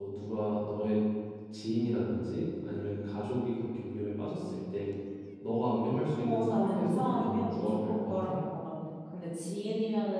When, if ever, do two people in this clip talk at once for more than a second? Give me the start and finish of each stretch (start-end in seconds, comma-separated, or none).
6.2-8.3